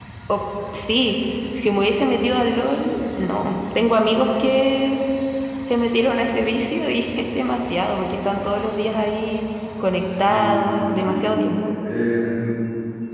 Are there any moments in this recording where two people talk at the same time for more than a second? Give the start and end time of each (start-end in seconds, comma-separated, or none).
10.0-11.2